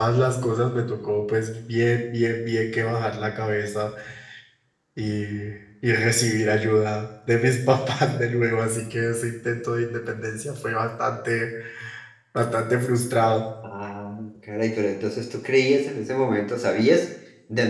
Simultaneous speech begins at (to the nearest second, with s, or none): none